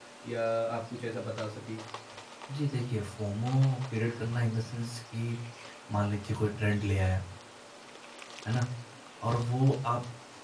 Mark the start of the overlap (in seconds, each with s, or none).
none